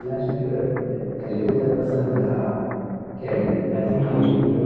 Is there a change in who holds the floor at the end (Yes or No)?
Yes